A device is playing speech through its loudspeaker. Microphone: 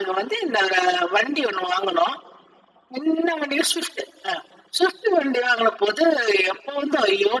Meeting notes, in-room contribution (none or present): none